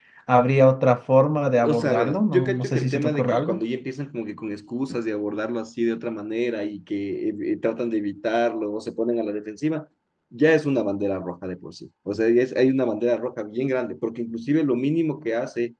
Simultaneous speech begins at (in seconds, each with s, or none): 1.6 s